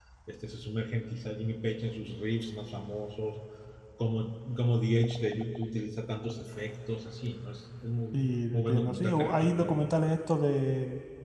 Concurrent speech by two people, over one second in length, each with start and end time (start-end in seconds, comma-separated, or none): 8.5-9.9